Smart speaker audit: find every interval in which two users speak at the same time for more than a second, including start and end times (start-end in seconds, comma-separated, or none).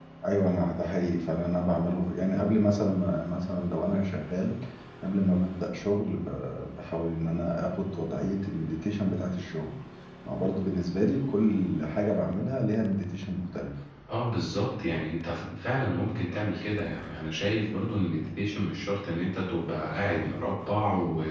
none